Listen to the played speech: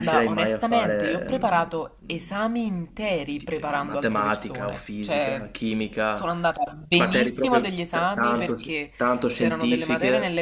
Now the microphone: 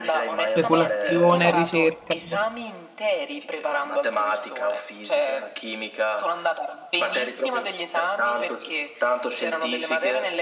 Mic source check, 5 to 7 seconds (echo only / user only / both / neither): echo only